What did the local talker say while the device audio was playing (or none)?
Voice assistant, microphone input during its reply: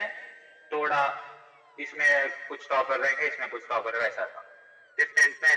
none